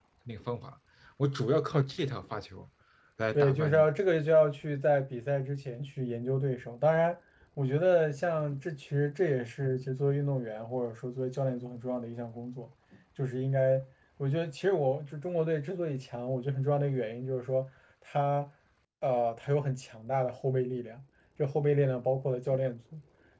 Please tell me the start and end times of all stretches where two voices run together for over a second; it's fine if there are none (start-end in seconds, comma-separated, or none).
none